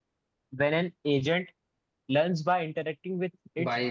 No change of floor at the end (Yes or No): No